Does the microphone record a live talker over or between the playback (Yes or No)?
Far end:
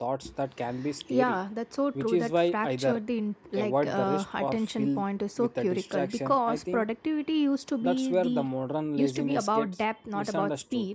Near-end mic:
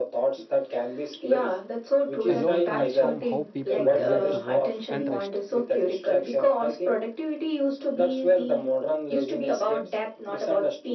Yes